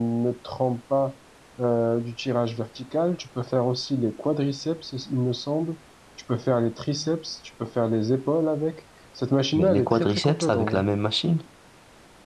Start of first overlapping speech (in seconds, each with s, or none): 9.5 s